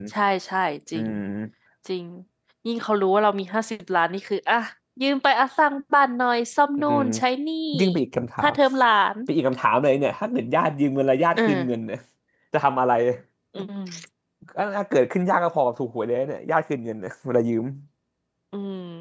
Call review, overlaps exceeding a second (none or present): none